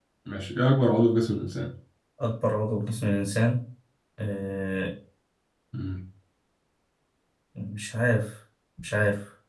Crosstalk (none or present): none